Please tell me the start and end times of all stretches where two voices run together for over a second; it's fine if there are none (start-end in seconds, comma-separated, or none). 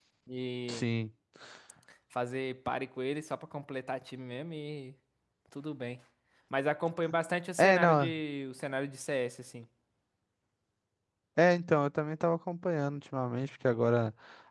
none